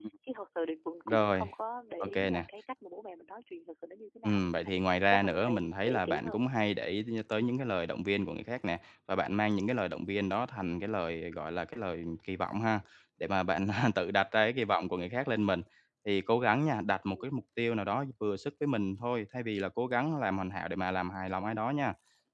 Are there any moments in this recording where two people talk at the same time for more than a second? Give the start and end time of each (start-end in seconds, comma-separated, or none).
5.1-6.4